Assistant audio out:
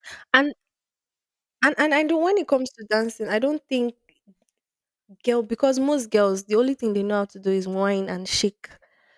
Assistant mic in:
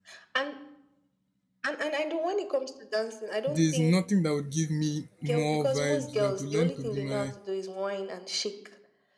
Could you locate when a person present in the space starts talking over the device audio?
3 s

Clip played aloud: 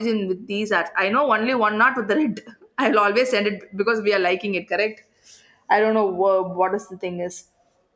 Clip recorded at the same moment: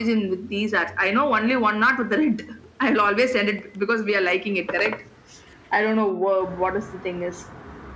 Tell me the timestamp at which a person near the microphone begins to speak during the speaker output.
none

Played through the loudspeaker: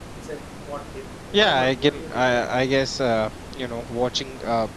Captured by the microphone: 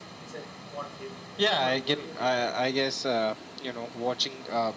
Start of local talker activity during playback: none

